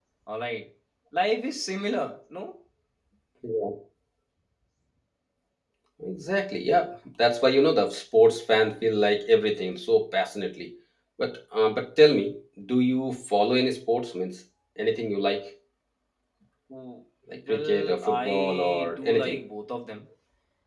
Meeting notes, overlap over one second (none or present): present